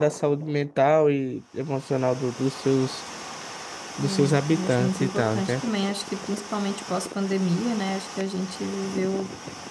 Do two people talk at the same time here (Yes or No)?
Yes